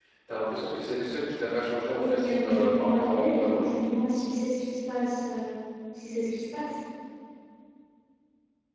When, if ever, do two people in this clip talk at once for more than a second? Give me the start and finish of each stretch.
2.0-3.7

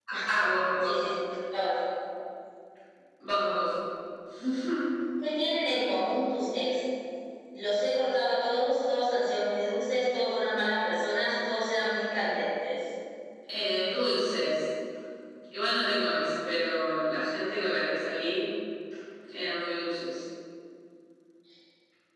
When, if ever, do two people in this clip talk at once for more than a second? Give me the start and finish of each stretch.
none

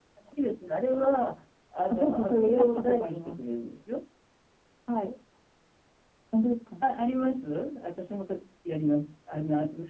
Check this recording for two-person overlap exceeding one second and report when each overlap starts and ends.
1.9-3.4

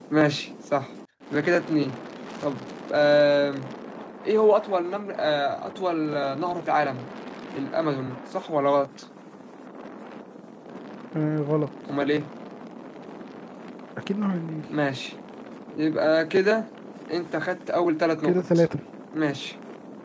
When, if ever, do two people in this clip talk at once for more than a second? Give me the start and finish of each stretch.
none

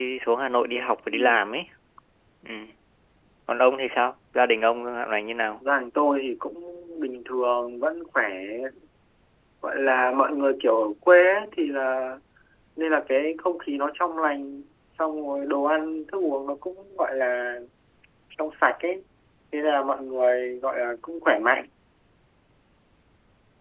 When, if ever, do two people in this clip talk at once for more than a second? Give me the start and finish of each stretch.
none

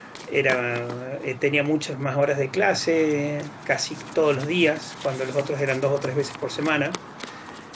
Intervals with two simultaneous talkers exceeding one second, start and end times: none

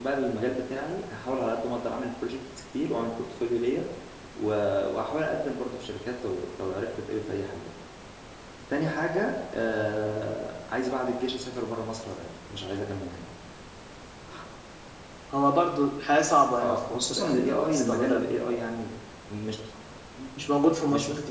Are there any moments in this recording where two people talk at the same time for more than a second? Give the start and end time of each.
16.6-18.2

